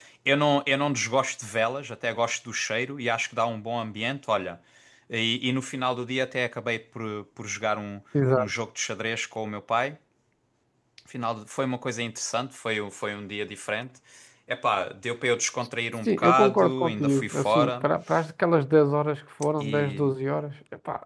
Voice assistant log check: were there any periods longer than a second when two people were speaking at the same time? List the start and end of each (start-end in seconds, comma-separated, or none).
16.0-17.9